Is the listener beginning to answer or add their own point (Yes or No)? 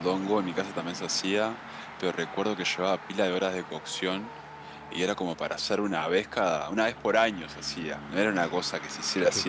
Yes